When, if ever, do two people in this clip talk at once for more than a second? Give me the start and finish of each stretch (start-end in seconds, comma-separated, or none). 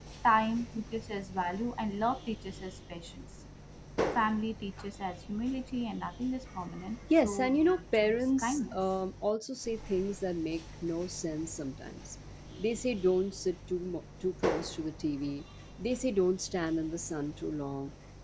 7.2-8.8